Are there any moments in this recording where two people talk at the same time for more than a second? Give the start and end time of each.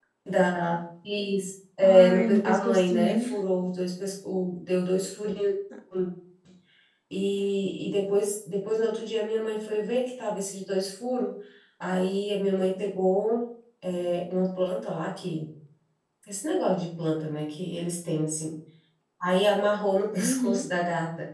1.8-3.2

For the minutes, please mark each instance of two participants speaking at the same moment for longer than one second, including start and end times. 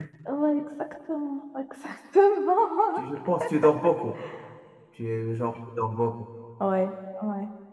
none

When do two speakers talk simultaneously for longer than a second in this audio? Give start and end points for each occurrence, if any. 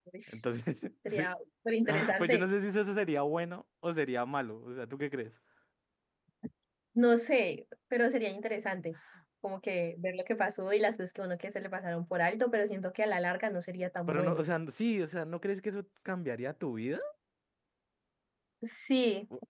none

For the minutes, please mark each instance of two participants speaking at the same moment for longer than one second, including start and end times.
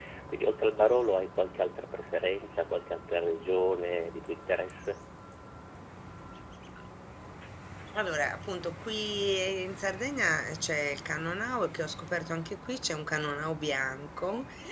none

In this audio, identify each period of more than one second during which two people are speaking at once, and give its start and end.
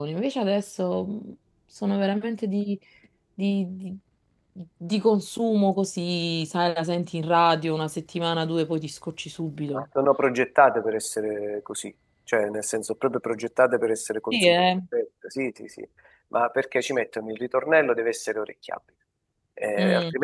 none

